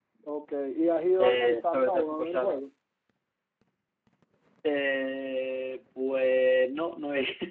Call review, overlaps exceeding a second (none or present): present